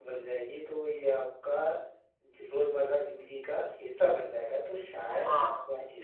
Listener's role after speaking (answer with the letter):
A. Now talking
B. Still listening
A